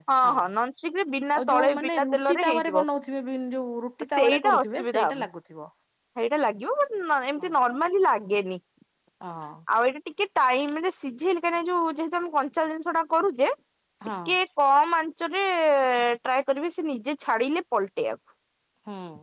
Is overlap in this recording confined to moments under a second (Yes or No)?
No